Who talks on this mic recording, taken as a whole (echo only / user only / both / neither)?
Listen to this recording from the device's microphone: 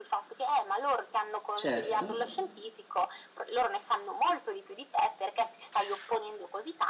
both